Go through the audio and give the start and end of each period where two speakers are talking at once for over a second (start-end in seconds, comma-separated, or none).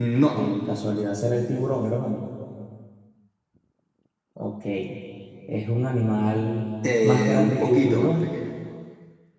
7.0-8.3